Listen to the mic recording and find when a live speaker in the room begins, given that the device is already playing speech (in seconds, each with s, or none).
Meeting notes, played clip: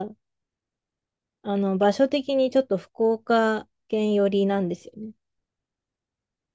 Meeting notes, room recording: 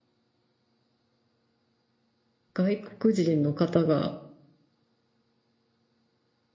2.5 s